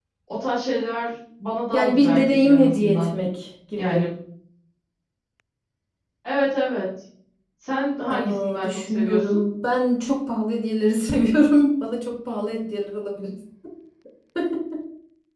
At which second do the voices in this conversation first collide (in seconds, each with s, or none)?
1.7 s